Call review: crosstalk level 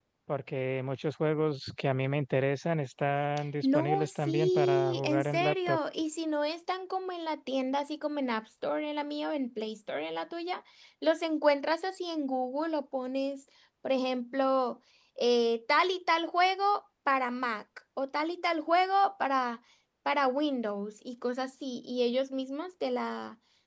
present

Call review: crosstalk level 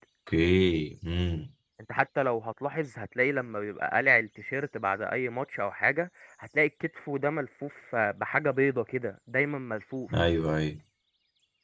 none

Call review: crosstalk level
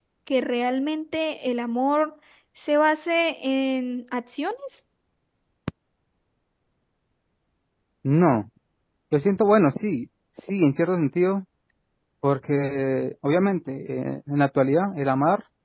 none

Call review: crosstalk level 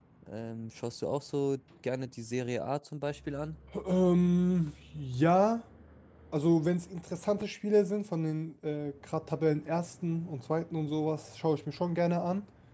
none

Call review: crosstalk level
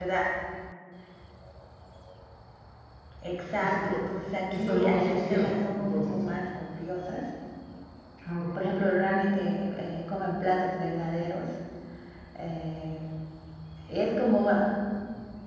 present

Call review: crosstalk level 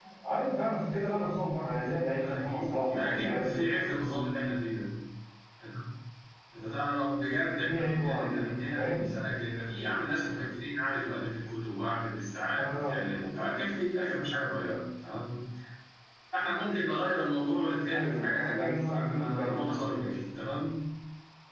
present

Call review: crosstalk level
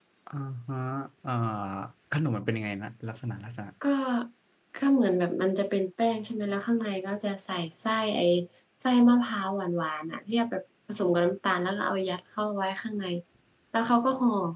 none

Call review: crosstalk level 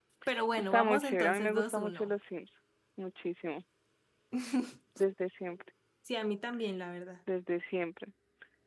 present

